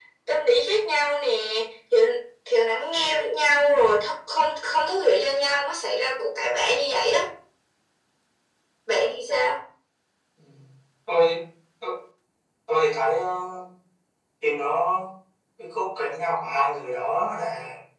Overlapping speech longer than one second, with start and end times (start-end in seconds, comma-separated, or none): none